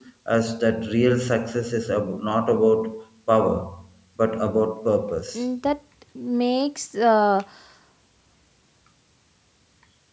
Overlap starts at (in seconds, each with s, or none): none